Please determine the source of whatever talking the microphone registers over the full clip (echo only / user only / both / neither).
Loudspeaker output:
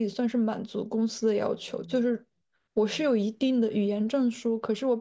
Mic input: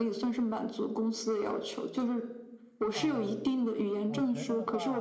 both